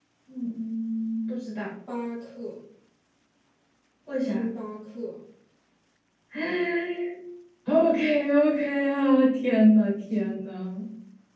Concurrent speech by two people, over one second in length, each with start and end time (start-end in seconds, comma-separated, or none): none